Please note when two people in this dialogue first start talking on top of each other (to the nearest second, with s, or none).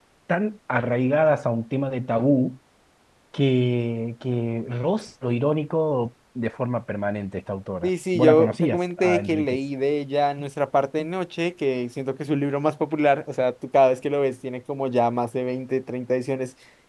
8 s